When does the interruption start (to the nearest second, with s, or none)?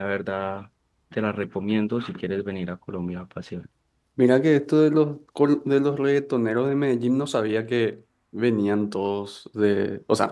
none